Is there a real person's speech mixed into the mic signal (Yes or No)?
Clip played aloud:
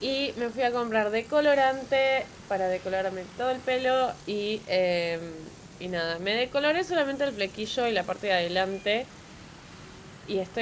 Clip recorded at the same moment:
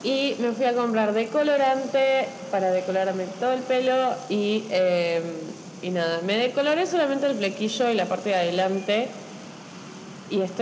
No